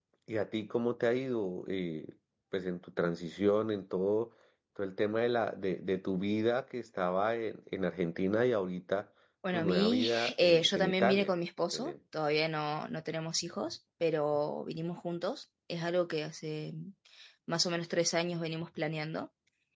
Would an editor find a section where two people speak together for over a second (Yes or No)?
Yes